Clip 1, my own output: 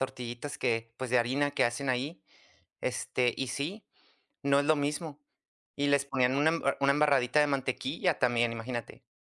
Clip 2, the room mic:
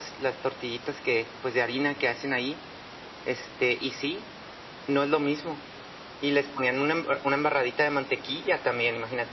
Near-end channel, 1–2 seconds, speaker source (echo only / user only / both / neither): echo only